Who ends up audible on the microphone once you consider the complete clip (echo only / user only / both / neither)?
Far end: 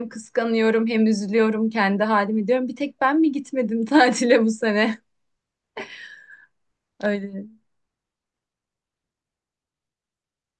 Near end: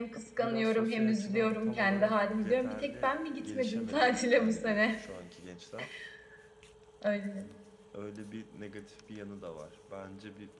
both